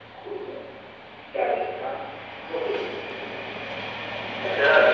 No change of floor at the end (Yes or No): No